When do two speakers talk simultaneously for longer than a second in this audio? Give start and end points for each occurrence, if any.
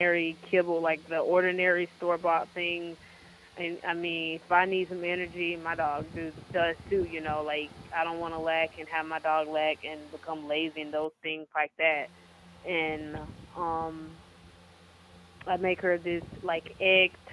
none

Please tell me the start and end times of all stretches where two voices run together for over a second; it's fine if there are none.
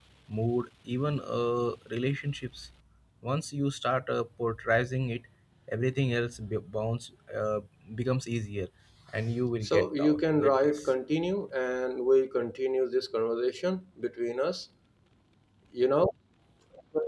9.6-10.9

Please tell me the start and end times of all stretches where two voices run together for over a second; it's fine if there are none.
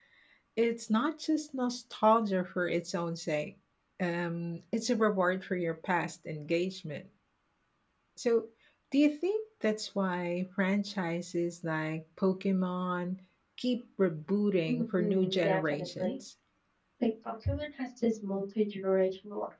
14.7-16.1

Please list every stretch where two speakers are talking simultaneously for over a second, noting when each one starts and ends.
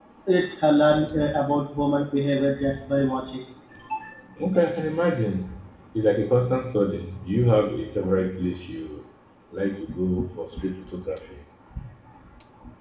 none

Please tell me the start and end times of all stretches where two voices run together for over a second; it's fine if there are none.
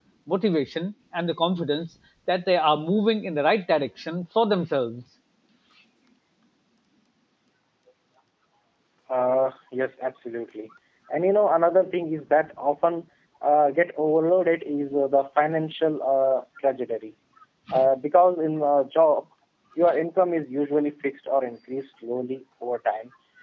none

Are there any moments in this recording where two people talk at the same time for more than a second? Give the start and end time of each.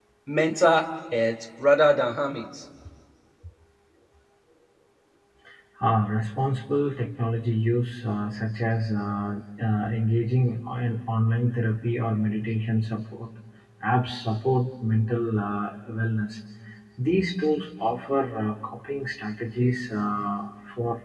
none

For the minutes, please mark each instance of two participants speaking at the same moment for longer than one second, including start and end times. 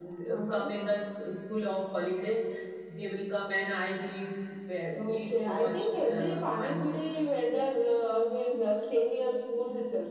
4.9-7.1

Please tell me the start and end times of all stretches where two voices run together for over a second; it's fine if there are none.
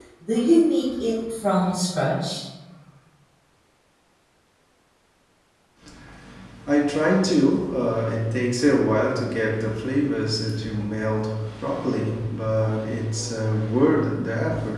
none

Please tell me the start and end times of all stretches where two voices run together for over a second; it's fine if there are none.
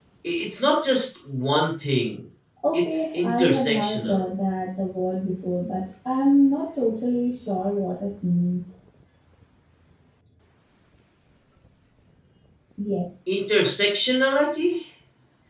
2.7-4.2

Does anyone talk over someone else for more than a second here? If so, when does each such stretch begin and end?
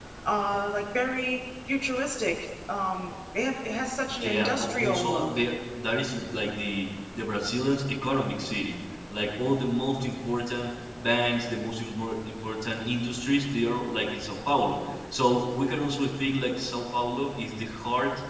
4.1-5.4

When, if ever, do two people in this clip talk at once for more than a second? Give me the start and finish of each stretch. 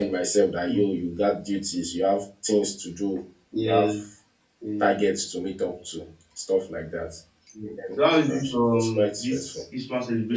8.3-9.6

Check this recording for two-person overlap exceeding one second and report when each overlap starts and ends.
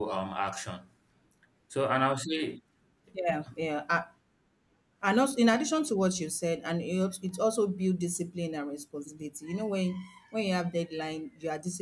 none

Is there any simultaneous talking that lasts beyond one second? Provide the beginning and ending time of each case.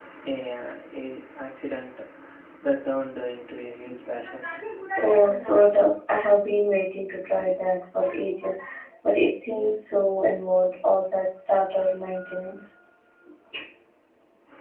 none

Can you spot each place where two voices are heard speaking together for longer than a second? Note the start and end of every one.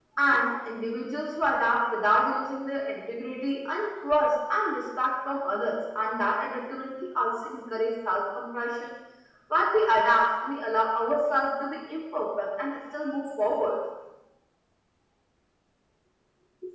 none

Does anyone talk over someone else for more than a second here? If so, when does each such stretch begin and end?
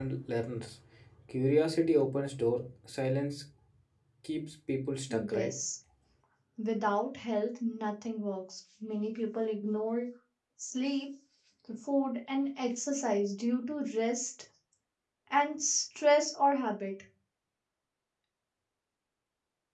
none

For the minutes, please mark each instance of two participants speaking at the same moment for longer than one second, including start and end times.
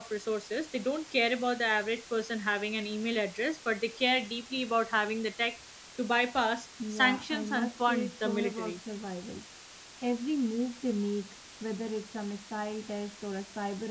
6.9-8.8

